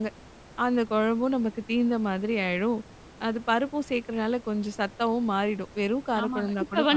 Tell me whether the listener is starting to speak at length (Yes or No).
Yes